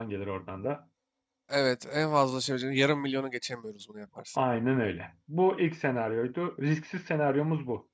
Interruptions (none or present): none